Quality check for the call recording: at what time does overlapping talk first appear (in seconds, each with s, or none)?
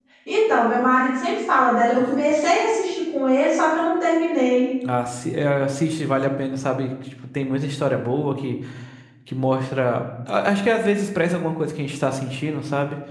none